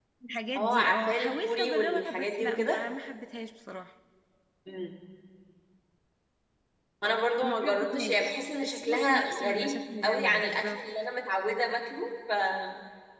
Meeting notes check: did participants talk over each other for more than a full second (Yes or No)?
Yes